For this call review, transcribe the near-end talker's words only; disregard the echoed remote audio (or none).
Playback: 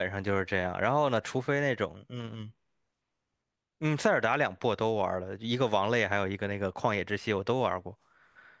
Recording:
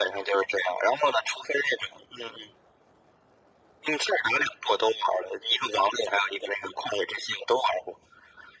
none